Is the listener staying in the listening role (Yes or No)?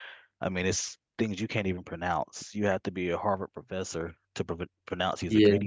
Yes